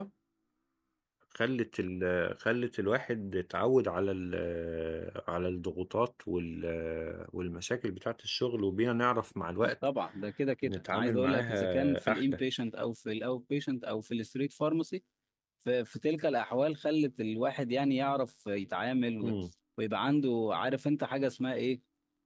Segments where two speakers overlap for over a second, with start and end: 10.6-12.4

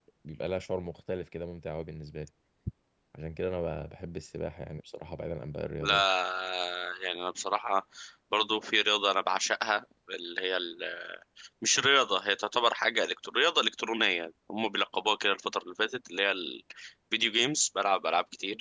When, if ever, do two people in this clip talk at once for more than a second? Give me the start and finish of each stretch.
none

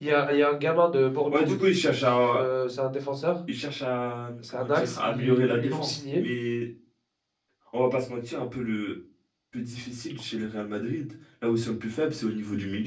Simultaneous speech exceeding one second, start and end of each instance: 4.5-6.2

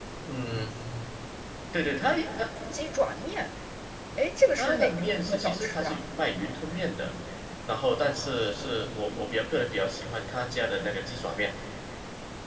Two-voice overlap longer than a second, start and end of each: 4.6-6.0

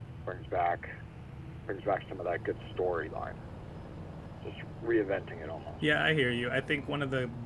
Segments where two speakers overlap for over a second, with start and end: none

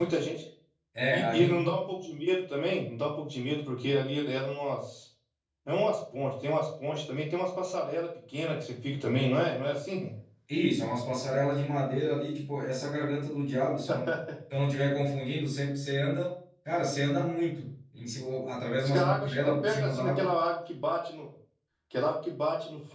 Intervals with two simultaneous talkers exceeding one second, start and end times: 18.8-20.3

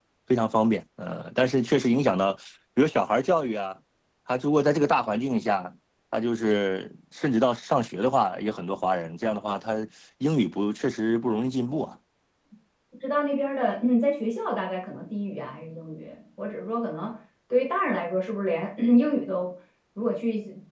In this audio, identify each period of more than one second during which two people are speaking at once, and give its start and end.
none

